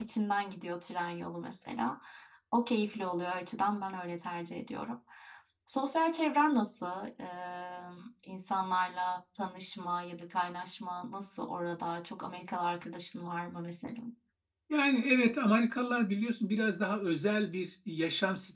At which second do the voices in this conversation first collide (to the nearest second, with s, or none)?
none